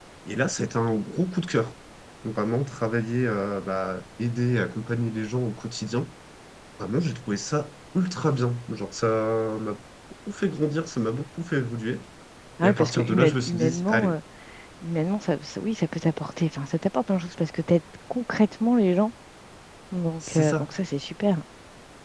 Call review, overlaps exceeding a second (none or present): present